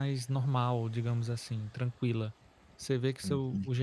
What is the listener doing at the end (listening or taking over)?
listening